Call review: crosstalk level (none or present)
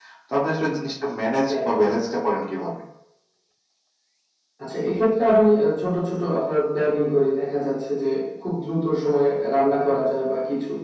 none